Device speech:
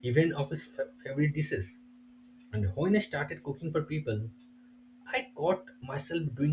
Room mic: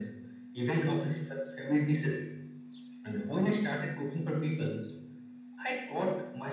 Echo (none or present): present